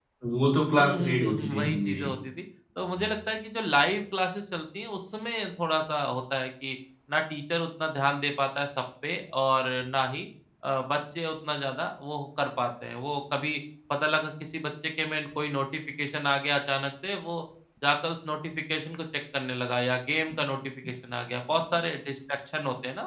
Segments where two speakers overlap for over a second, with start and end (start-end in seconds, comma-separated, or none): 0.8-2.1